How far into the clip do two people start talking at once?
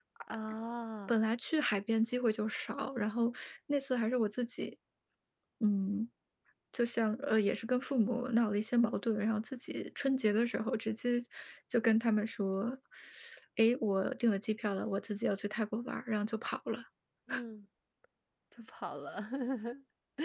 none

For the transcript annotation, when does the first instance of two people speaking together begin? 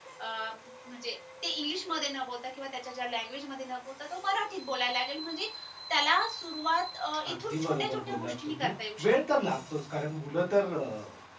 7 s

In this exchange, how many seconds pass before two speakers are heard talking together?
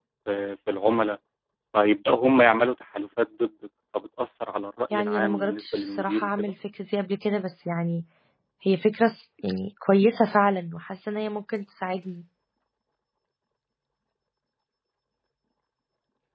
5 s

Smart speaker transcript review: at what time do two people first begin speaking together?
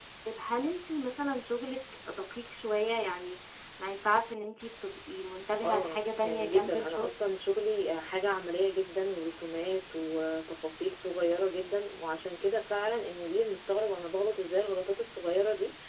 6 s

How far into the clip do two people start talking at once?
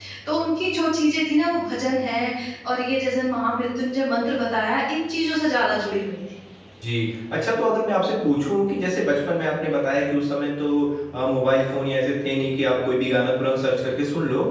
none

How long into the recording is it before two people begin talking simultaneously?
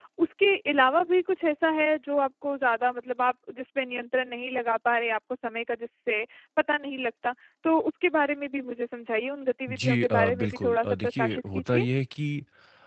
10 s

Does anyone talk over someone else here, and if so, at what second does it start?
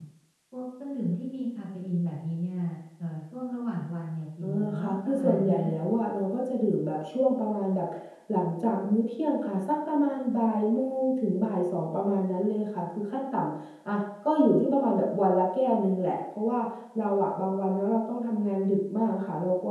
4 s

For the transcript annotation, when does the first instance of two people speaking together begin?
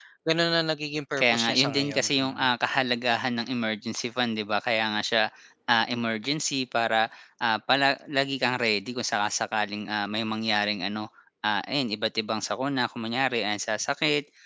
1 s

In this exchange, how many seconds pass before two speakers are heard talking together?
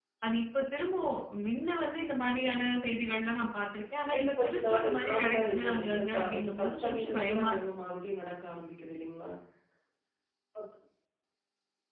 4 s

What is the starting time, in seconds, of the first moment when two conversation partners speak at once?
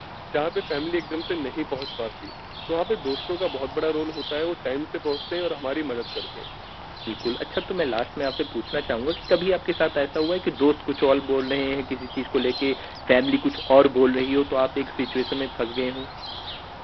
none

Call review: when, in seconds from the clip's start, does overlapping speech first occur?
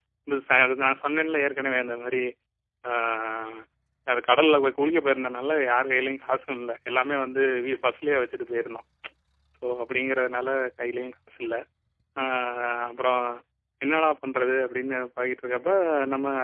none

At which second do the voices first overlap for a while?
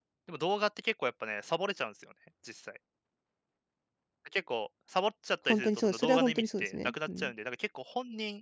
5 s

